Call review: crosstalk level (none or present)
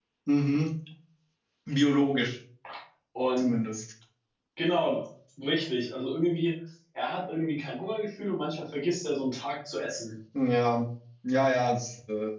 none